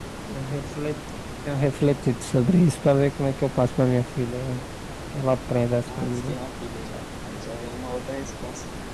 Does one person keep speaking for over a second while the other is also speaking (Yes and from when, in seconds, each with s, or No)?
No